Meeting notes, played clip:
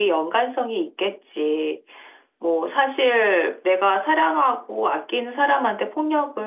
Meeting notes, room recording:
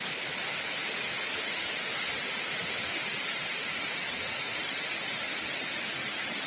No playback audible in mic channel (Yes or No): Yes